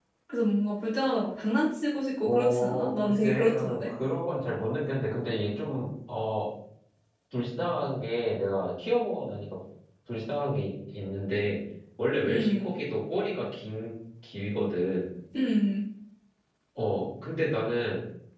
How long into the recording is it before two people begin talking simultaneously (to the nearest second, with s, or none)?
2 s